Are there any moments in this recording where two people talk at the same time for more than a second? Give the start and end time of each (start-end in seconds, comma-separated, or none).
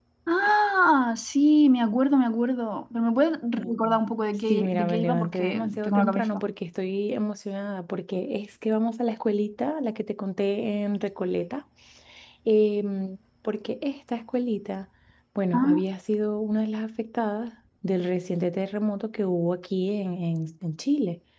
4.5-6.4